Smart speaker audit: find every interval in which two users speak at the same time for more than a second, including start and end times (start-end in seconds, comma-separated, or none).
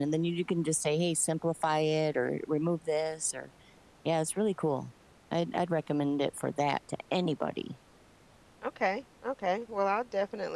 none